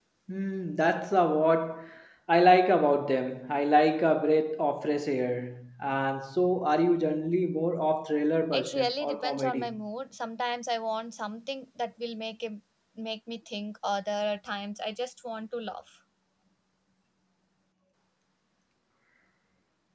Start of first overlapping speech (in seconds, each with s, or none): 8.5 s